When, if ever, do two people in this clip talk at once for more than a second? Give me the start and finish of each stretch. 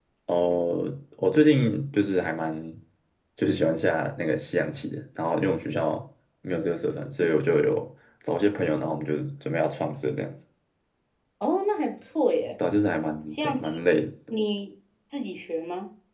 none

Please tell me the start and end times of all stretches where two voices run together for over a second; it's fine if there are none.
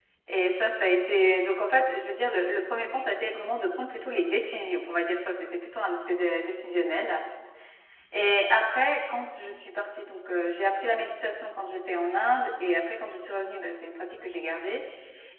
none

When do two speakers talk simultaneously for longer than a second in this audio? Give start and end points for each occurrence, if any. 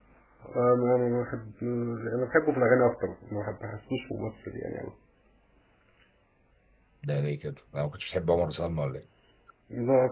none

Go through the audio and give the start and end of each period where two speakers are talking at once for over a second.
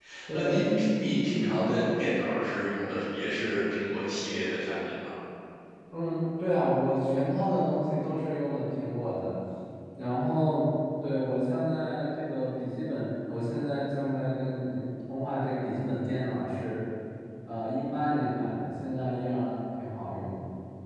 none

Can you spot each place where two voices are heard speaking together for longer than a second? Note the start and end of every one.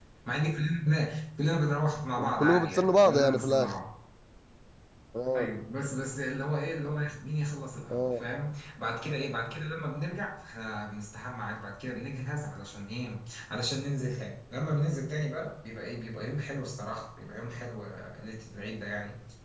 2.3-3.8

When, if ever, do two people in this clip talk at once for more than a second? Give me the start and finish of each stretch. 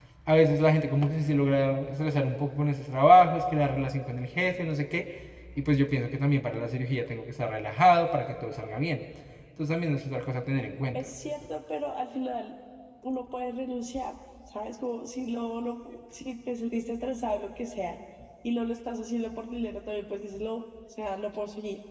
none

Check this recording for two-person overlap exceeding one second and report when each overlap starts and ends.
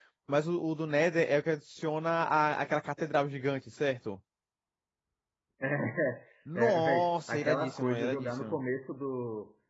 6.5-8.6

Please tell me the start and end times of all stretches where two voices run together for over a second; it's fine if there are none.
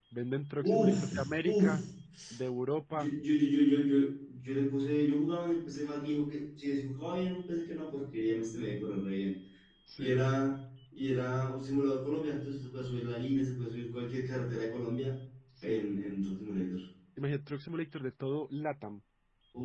0.6-1.8

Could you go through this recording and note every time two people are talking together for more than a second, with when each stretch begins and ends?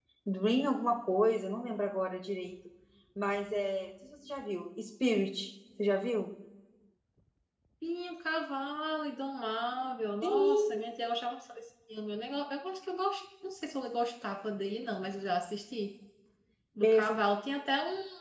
none

